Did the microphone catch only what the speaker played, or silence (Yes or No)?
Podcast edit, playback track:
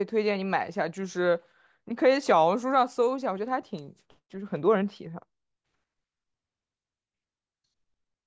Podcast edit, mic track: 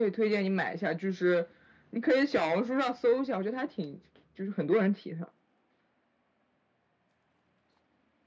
Yes